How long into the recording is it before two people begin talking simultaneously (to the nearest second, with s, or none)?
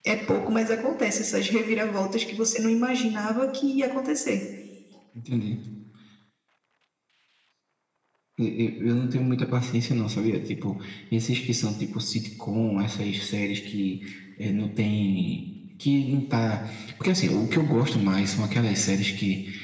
none